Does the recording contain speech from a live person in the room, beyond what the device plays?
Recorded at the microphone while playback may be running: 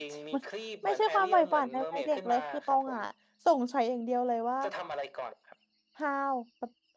Yes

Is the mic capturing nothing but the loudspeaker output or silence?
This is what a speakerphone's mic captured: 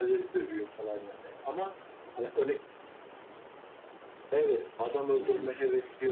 No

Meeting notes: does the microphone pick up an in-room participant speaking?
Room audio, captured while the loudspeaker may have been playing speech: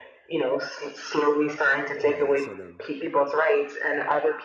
Yes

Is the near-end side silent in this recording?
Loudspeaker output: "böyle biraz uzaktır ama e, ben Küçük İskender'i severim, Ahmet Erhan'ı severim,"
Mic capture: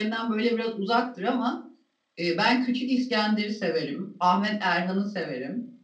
Yes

